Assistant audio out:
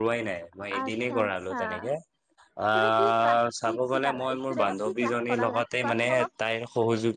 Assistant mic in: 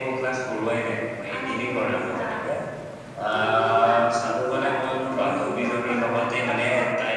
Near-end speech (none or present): none